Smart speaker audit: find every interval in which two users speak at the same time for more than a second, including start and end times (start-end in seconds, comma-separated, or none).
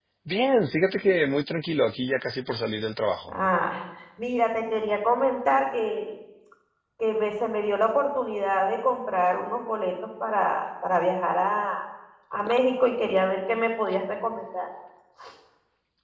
none